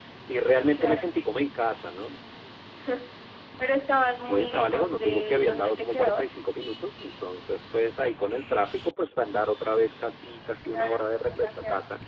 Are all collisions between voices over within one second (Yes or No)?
No